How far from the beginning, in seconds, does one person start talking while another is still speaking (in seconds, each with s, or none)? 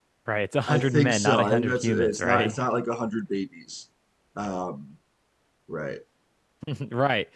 0.7 s